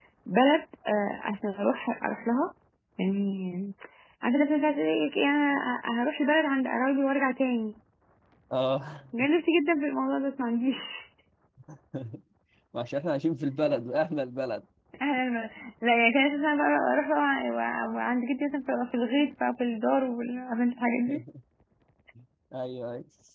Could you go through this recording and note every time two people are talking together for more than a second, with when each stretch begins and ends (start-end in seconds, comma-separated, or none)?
none